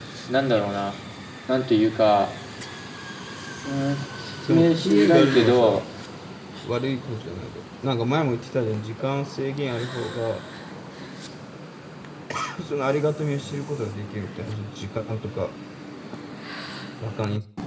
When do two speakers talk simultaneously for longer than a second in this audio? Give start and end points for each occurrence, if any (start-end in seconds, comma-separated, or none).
4.5-5.8